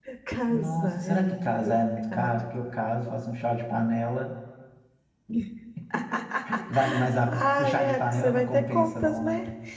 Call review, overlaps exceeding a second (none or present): present